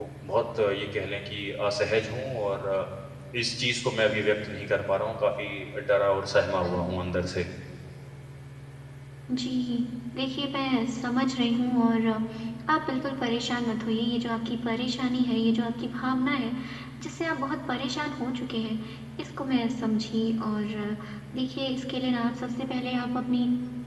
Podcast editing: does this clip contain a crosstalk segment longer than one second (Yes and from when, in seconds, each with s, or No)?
No